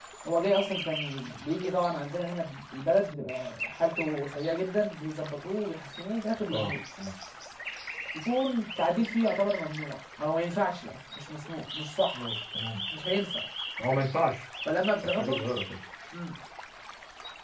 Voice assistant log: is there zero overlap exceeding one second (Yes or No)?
Yes